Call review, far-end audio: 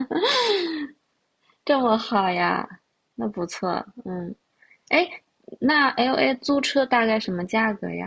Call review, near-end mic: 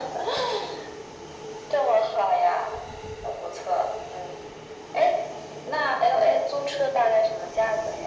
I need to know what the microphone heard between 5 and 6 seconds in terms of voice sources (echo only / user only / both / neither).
echo only